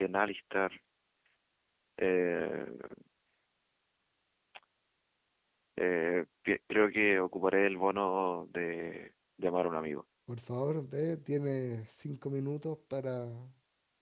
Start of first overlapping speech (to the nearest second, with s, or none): none